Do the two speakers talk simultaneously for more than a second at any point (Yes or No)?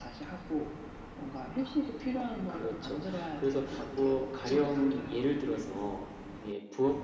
Yes